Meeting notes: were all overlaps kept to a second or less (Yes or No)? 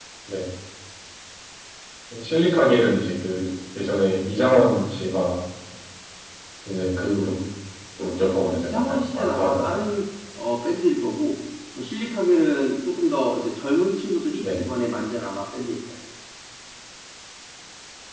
No